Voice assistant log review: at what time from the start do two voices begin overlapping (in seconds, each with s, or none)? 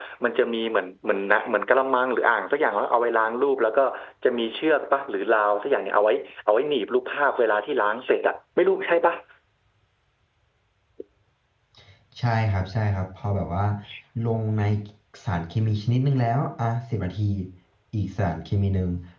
none